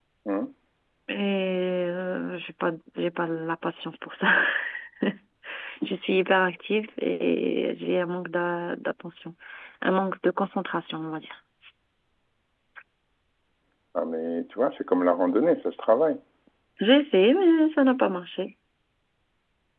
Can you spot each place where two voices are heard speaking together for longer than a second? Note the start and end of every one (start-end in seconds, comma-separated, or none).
none